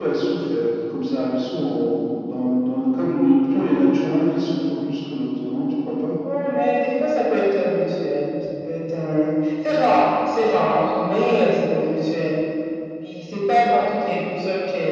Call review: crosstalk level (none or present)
none